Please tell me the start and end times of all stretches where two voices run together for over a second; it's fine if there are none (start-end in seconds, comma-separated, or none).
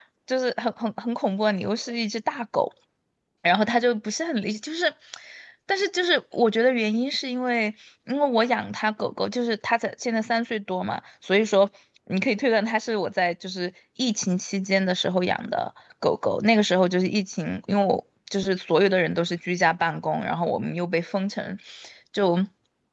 none